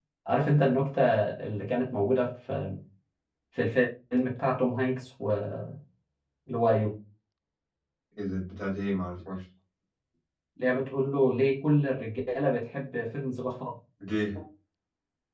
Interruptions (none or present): none